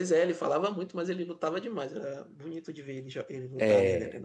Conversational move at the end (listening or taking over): taking over